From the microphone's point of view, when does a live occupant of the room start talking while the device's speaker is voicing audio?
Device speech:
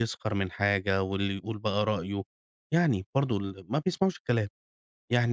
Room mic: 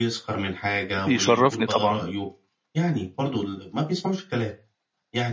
1 s

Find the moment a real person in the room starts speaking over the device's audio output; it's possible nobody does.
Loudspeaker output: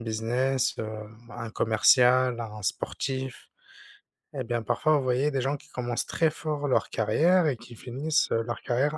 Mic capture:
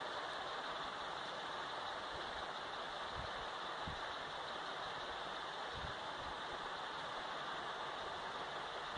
none

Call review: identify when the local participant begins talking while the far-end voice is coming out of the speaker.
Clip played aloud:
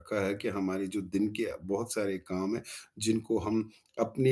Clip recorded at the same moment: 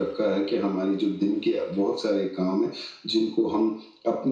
none

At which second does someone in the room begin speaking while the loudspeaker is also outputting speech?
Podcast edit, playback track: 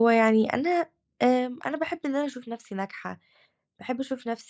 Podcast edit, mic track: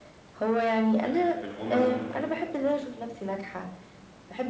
1 s

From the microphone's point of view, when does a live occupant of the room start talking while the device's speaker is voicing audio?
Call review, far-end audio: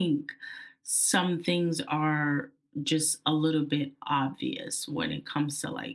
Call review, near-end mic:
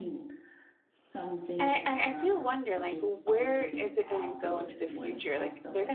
2 s

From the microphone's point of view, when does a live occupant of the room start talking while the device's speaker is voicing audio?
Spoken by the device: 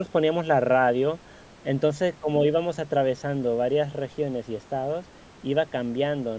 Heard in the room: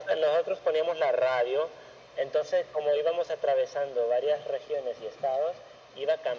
none

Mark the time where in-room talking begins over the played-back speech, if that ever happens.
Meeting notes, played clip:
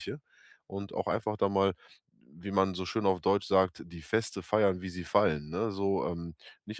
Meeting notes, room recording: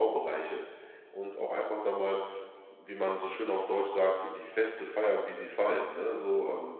none

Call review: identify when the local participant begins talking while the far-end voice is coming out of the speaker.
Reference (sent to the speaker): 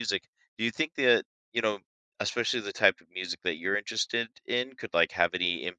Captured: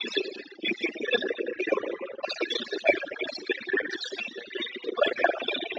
none

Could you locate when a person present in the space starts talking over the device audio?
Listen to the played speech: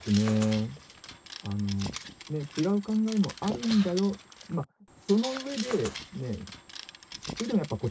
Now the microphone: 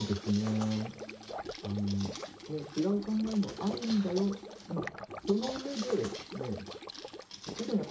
none

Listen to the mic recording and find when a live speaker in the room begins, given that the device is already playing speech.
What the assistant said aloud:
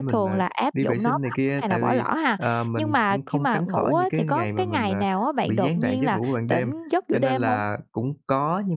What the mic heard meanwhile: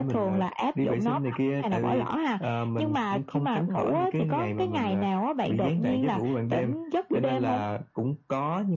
none

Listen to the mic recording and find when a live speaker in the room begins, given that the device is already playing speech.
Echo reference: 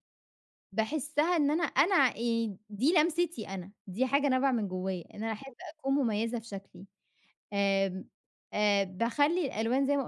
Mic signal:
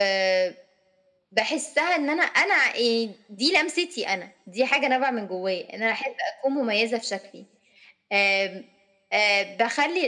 none

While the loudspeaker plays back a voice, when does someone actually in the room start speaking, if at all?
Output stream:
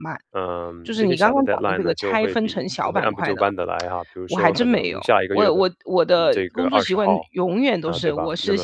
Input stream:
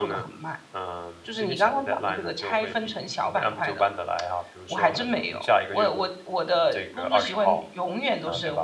none

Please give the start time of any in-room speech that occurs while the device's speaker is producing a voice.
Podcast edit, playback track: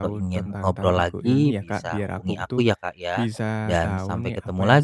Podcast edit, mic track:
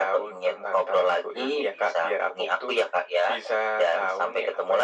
none

